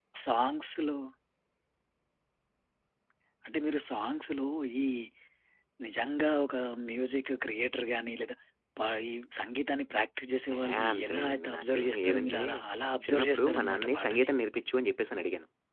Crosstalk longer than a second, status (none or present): present